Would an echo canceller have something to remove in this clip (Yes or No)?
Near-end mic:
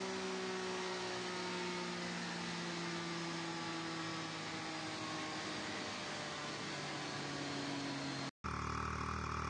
No